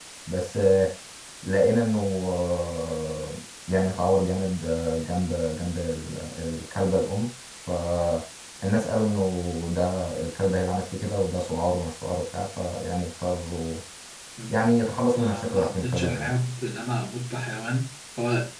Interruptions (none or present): present